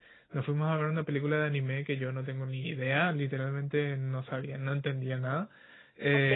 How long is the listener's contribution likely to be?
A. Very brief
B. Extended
A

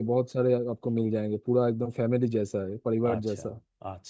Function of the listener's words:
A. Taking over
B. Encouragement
A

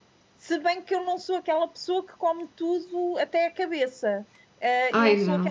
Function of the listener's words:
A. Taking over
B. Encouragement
B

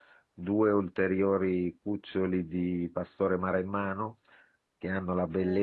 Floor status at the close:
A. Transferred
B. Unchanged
B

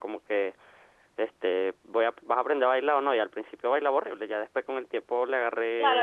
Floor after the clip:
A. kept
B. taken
B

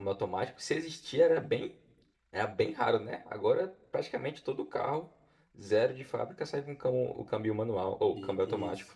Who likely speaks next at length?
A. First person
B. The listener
B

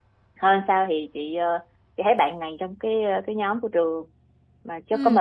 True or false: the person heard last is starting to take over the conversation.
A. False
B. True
A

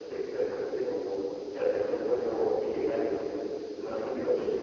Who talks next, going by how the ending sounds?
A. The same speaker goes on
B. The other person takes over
A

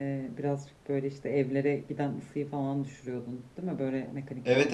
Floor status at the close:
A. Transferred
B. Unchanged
A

